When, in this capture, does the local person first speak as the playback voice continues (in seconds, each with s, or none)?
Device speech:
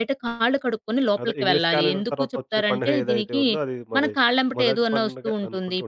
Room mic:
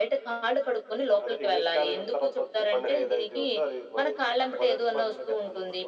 none